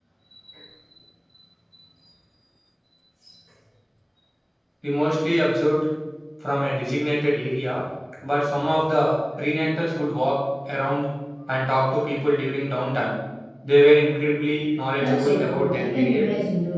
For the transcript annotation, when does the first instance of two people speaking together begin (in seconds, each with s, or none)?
15.0 s